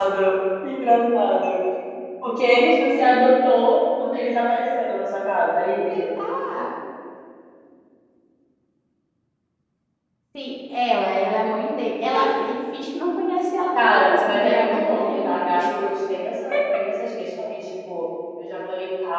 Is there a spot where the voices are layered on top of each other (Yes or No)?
Yes